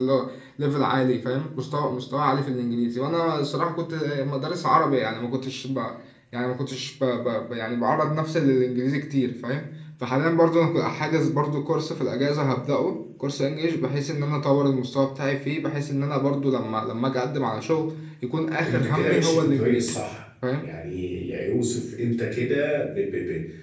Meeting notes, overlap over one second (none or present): present